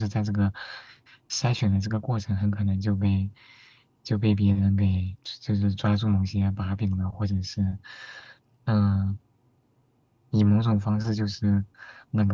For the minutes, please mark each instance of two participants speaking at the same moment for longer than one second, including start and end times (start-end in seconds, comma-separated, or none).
none